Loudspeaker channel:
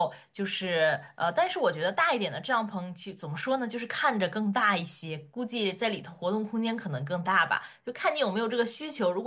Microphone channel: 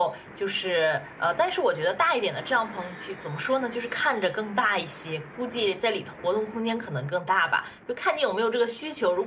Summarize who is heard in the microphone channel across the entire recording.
echo only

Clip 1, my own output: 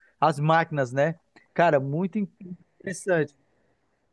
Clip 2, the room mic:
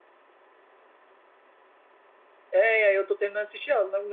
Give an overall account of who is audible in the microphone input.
user only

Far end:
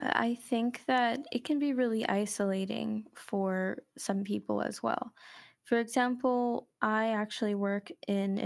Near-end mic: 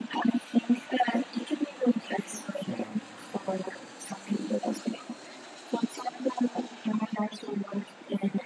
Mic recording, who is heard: both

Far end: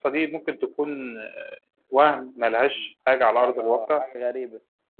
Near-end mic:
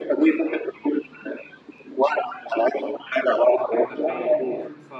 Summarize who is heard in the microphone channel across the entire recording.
both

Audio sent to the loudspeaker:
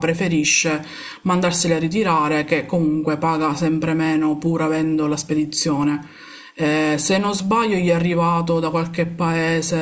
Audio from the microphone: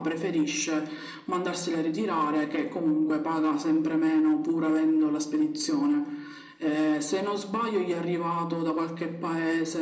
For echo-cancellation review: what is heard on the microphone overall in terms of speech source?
echo only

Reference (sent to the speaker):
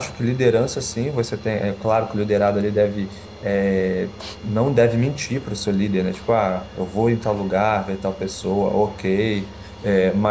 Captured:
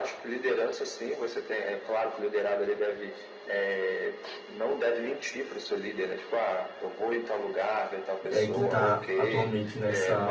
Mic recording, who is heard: both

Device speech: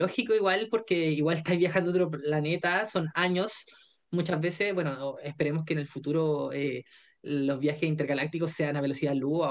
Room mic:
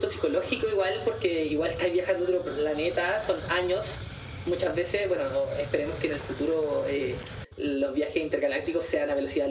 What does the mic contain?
echo only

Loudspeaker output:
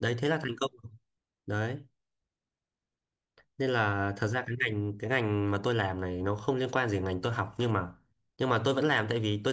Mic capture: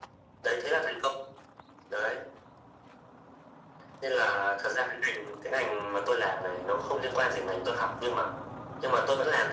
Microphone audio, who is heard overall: echo only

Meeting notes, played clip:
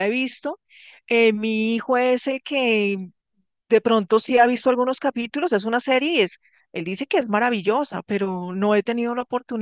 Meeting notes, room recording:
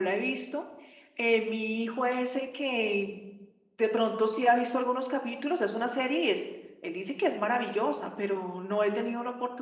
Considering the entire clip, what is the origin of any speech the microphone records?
echo only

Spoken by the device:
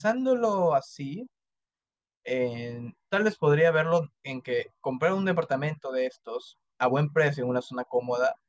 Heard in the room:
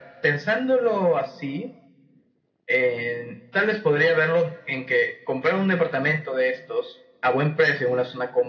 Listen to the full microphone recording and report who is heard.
echo only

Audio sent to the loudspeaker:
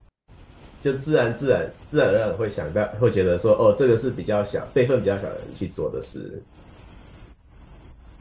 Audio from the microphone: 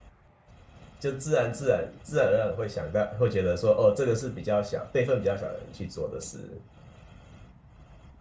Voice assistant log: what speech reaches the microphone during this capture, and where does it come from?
echo only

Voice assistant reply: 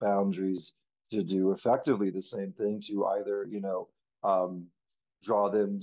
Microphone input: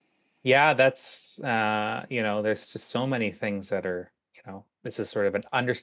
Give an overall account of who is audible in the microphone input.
user only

